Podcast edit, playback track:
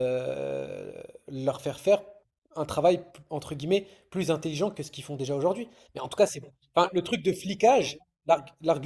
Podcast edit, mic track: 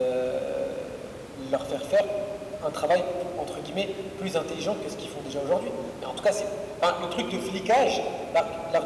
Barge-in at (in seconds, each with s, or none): none